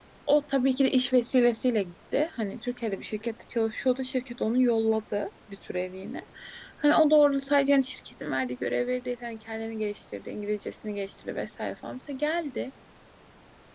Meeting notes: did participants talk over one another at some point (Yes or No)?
No